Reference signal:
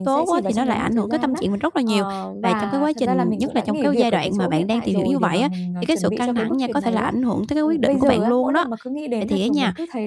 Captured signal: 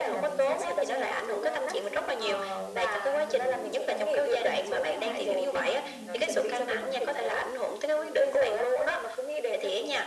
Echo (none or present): present